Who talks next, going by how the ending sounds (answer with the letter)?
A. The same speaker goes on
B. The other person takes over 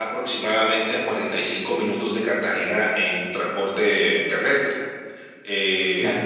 A